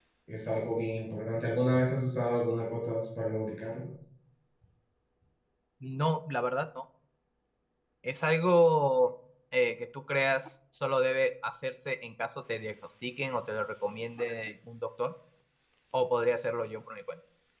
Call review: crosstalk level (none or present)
none